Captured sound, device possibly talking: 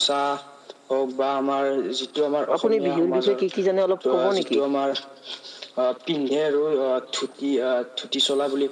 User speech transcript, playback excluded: আপুনি বিহুৰ বিষয়ে কি, কি জানে অলপ ক'ব নেকি?

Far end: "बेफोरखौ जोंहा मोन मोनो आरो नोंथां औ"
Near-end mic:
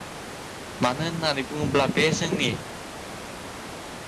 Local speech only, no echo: मानो होननानै बुङोब्ला बे जोंनि

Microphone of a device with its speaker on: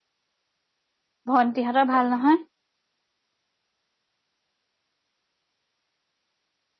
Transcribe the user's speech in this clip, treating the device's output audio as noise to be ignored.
ভন্টিহঁতৰ ভাল নহয়?

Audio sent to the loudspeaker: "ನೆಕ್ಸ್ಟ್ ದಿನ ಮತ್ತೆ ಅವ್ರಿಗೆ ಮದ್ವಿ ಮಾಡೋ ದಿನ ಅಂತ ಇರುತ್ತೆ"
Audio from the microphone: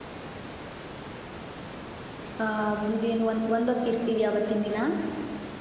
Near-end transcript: ಆಹ ಇದೇನು ಒಂದ ಒಂದೊತ್ತ ಇರ್ತೀವಿ ಆವತ್ತಿನ ದಿನ.

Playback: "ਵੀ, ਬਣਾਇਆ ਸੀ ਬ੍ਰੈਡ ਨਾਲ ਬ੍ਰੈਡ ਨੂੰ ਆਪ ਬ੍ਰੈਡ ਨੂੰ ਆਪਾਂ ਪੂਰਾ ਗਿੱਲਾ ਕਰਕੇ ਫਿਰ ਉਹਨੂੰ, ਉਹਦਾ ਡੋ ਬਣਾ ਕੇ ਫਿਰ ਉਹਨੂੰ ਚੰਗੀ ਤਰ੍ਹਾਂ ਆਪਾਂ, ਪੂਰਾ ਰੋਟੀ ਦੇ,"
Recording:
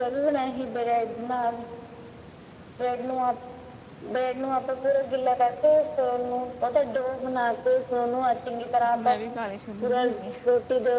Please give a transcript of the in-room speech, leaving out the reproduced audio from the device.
ਅੱਛਾ, ਮੈਂ ਵੀ ਕਾਲੇ ਛੋਲੇ ਭਿਹੁਨਦਿਆਂ।

